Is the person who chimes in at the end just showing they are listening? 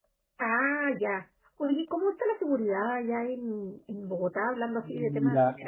No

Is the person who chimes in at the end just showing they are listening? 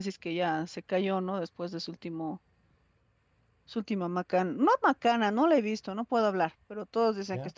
Yes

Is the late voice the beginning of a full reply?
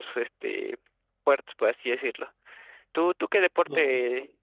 No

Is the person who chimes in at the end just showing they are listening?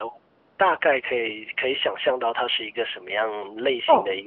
No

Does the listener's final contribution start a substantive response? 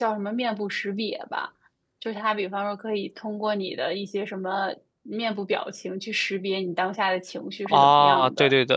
Yes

